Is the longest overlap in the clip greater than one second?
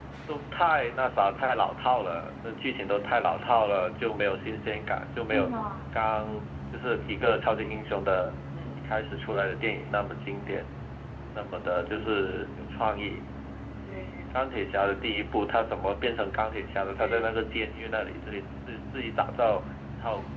No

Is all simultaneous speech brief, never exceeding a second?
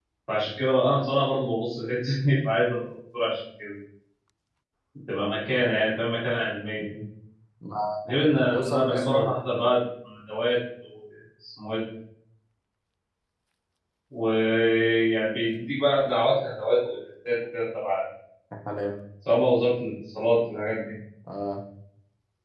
No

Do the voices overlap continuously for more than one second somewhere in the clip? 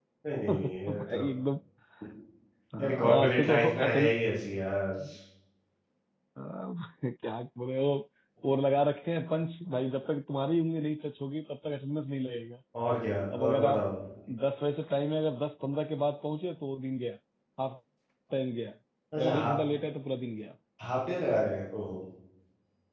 Yes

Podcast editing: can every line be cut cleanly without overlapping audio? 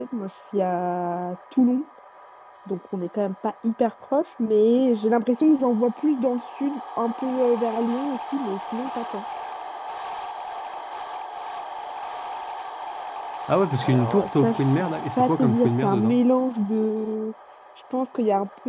No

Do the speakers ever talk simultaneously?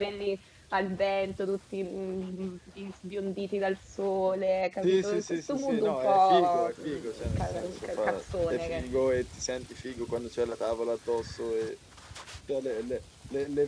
Yes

